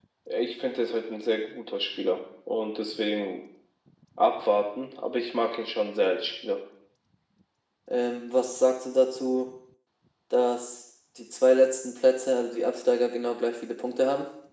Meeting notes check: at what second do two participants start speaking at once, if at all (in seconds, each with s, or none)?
none